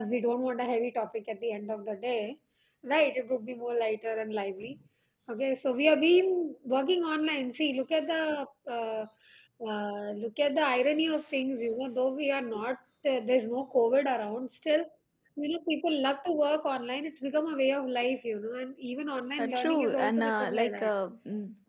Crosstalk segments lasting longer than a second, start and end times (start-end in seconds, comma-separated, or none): 19.4-20.9